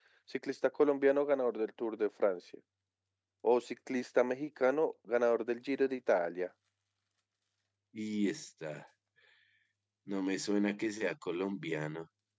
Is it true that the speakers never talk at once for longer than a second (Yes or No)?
Yes